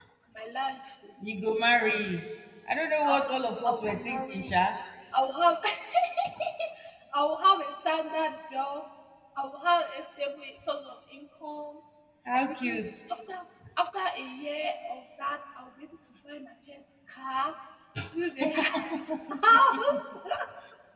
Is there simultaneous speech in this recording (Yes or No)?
Yes